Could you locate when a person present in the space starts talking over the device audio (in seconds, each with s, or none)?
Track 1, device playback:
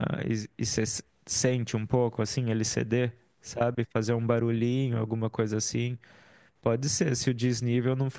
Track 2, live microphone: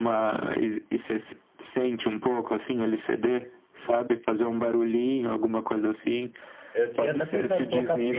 6.7 s